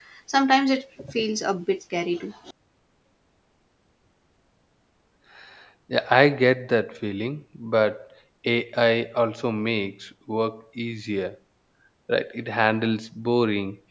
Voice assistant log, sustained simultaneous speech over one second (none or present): none